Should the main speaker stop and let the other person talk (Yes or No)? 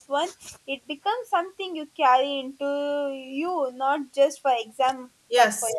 Yes